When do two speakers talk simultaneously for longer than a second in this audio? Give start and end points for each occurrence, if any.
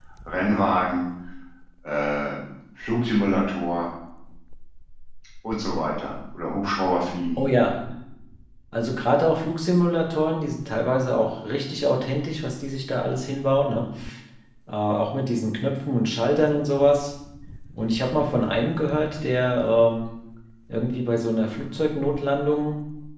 none

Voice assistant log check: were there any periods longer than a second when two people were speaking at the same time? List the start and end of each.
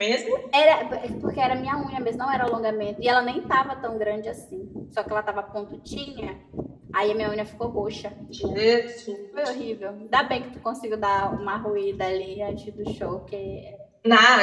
none

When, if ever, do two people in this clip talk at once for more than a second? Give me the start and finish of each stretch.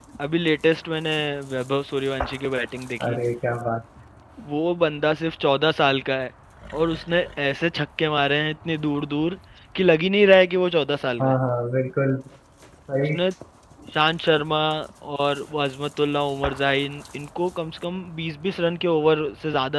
none

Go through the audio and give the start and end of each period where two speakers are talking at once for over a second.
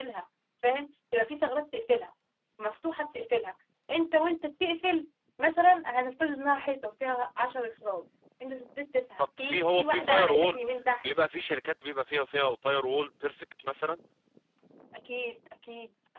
9.2-10.6

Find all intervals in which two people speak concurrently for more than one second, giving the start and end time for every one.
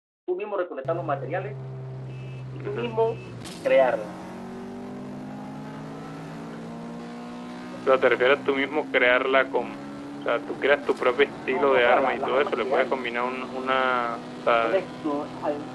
11.5-13.0

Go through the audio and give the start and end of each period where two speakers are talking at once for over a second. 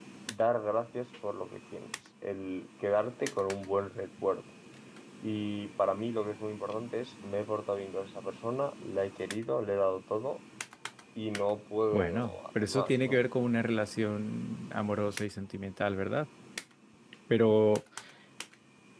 11.9-13.2

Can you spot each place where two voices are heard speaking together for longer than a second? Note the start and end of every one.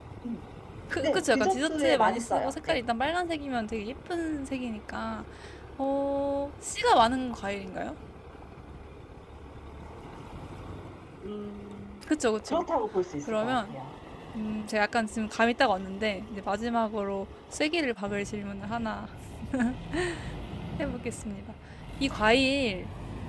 1.0-2.8

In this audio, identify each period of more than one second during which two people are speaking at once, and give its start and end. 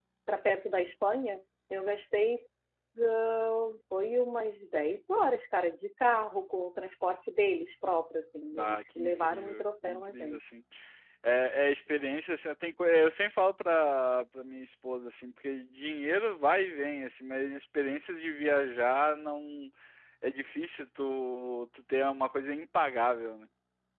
8.5-10.4

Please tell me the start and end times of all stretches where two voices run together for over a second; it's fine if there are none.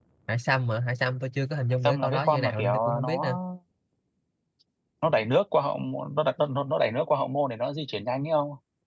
1.9-3.4

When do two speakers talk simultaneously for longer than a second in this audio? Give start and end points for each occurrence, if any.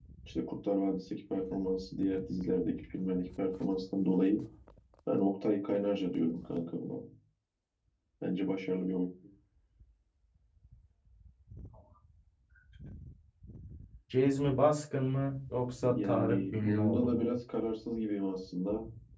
15.8-17.3

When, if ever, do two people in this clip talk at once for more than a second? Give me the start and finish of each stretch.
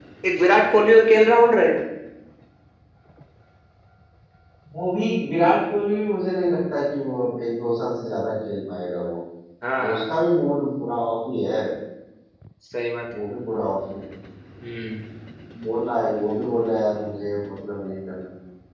none

